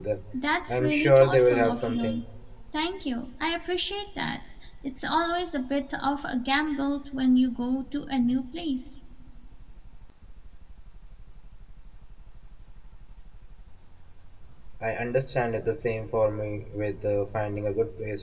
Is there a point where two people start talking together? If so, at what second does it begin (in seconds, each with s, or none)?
0.7 s